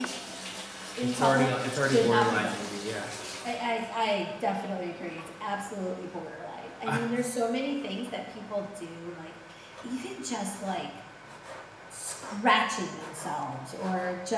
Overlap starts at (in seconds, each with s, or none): 1.0 s